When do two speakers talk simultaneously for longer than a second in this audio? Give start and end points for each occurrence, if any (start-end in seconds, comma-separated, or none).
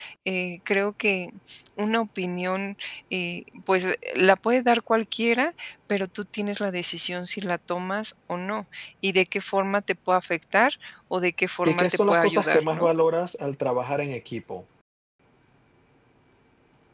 11.6-12.9